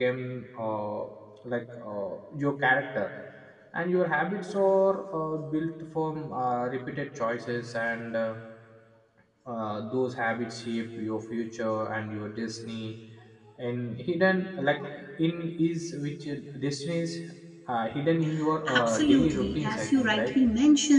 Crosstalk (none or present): present